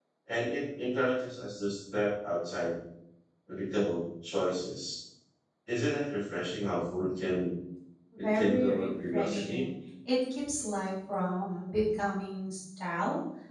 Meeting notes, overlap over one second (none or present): present